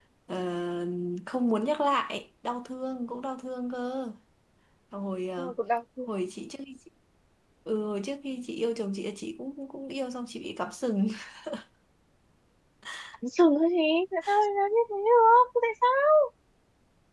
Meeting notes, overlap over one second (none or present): none